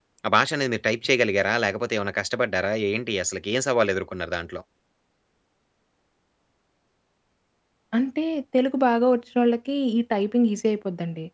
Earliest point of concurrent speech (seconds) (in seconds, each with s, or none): none